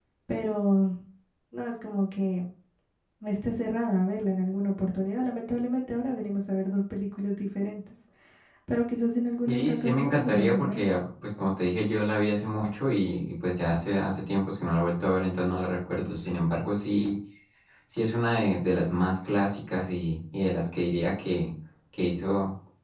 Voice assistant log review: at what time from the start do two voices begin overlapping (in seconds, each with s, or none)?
9.4 s